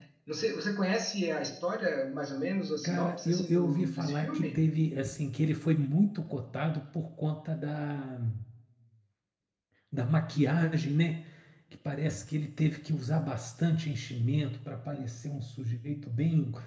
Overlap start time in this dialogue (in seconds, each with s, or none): 2.8 s